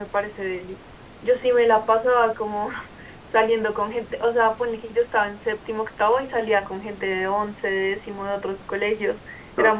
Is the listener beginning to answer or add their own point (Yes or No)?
No